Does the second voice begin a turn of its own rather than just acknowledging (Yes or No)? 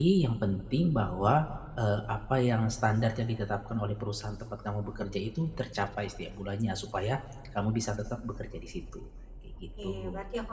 Yes